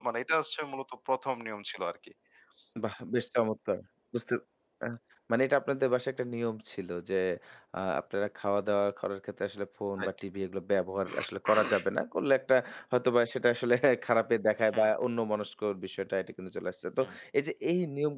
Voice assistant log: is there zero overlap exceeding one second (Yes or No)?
Yes